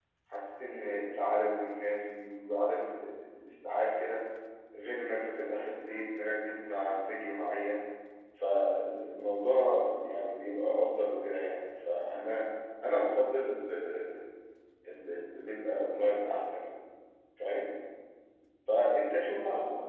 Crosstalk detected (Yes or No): No